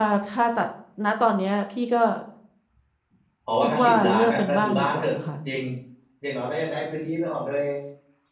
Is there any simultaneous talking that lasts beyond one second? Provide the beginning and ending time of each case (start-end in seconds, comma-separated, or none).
3.6-5.1